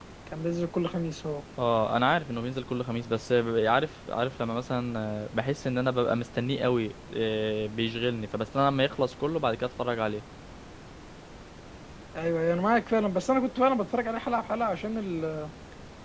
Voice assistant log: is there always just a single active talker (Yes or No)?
Yes